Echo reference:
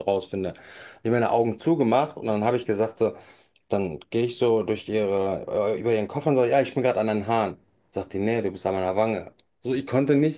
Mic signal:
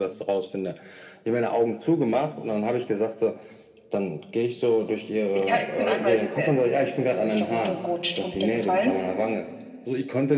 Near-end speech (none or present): present